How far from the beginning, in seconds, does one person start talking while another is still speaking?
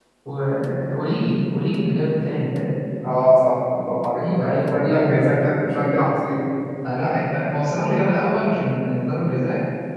4.2 s

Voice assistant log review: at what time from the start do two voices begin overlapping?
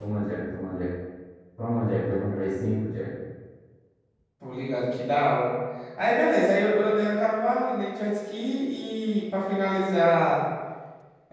none

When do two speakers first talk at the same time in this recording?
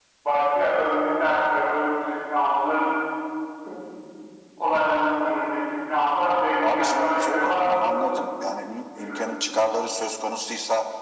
6.6 s

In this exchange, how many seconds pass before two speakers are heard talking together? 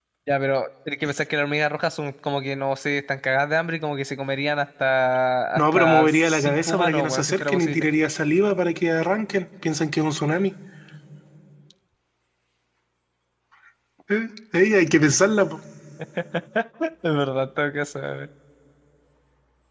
5.6 s

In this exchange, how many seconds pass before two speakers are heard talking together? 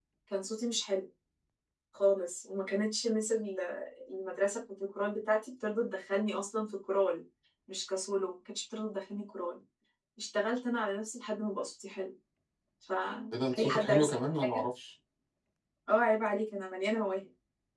13.3 s

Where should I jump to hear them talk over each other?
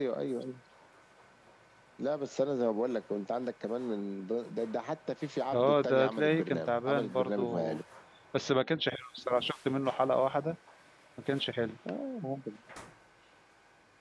5.5 s

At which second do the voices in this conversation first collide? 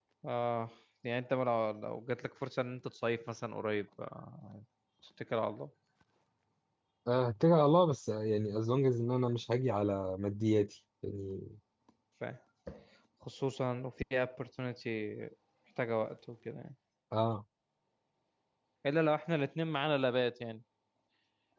none

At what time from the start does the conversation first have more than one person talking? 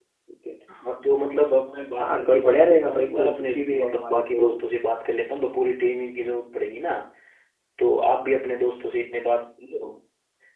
2.0 s

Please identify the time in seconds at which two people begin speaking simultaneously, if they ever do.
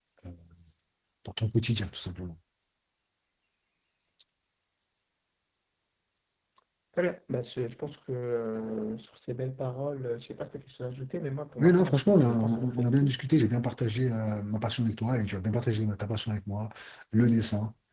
11.6 s

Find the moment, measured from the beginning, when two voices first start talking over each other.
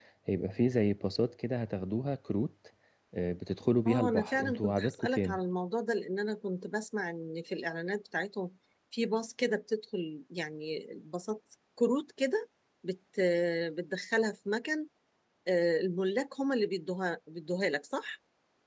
3.9 s

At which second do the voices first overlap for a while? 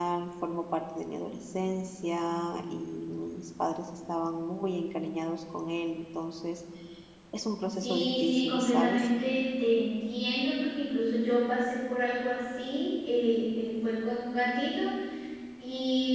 7.8 s

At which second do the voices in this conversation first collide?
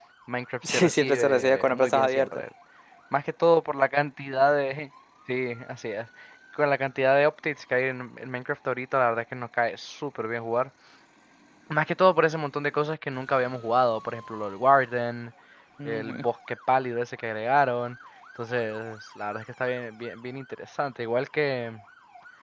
0.6 s

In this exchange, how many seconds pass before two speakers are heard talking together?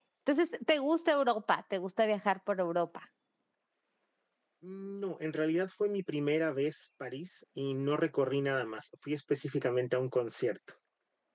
none

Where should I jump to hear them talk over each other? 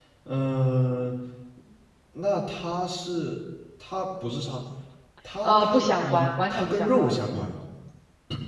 5.4 s

